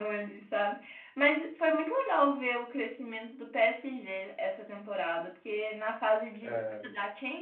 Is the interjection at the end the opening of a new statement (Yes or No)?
No